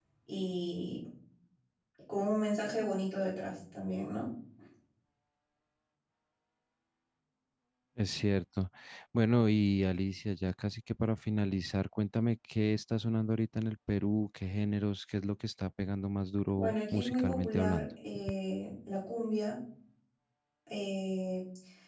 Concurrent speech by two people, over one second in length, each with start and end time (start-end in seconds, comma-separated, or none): 16.5-17.8